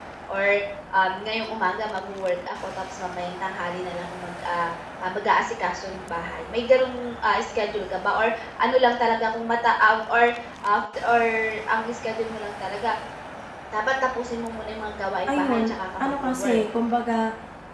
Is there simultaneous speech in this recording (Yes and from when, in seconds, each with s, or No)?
Yes, from 15.3 s